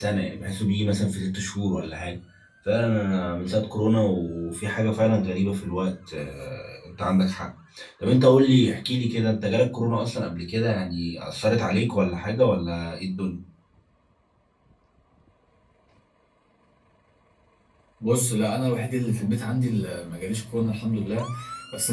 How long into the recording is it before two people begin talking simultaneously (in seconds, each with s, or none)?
none